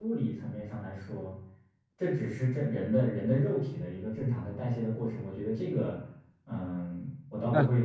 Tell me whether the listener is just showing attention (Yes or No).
No